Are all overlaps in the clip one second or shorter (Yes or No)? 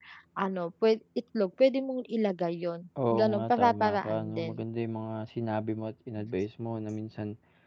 No